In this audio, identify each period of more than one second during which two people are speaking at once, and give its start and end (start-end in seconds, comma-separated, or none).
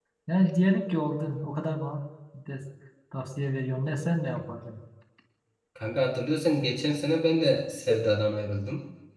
none